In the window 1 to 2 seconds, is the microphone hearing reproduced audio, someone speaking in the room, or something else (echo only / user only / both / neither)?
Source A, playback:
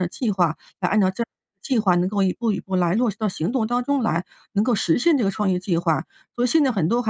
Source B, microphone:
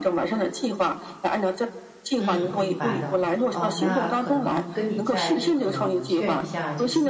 echo only